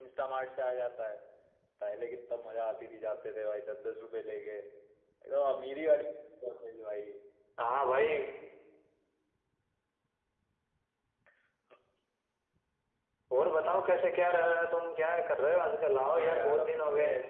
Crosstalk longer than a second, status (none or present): present